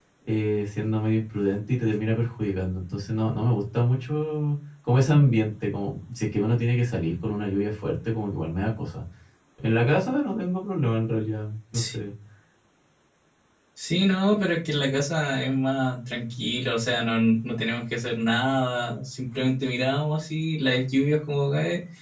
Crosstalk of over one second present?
No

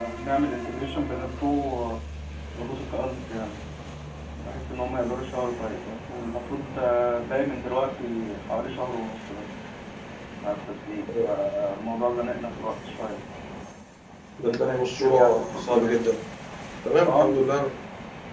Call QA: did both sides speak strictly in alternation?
No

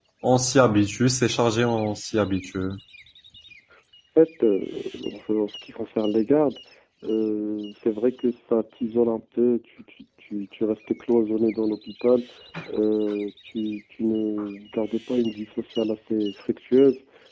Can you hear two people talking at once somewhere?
No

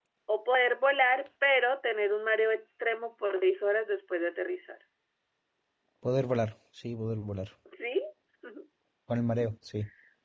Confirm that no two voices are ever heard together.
Yes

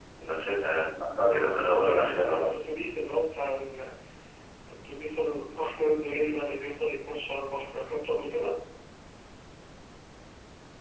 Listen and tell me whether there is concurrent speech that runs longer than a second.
Yes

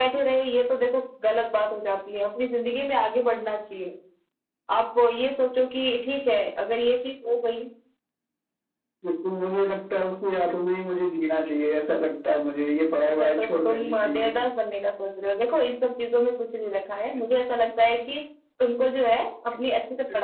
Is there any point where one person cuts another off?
Yes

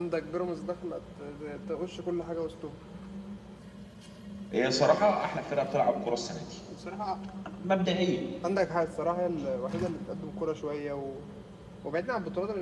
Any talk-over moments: No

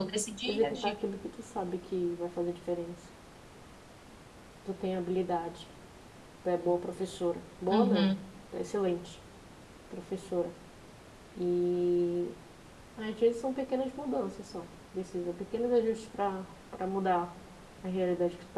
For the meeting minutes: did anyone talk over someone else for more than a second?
No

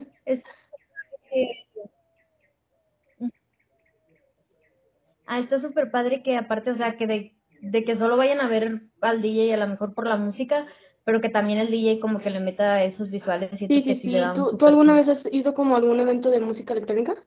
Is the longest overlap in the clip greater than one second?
Yes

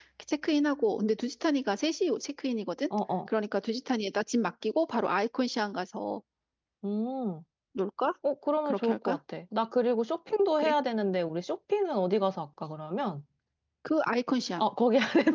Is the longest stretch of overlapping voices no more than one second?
Yes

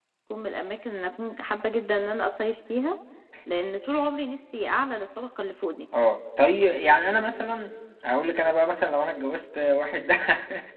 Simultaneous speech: No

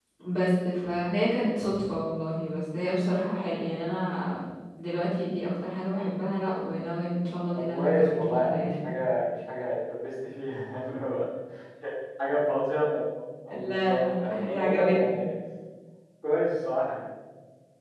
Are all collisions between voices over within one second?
No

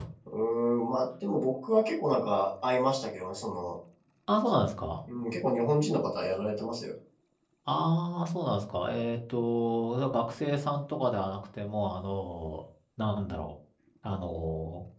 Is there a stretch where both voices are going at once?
No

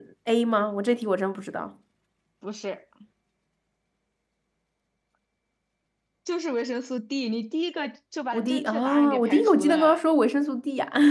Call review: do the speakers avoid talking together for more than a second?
No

